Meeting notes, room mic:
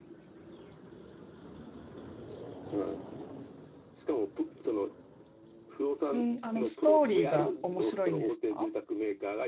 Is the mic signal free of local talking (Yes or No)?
No